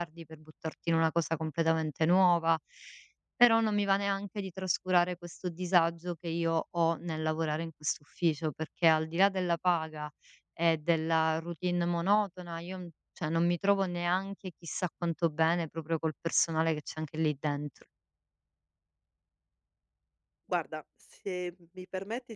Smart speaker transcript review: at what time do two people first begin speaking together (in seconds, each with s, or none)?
none